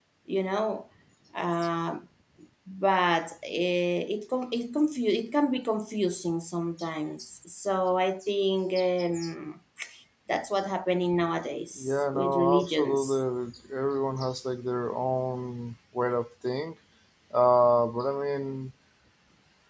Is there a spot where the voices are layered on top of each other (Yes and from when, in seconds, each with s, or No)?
Yes, from 11.8 s